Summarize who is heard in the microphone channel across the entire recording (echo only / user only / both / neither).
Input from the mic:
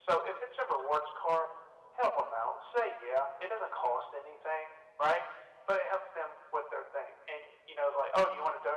echo only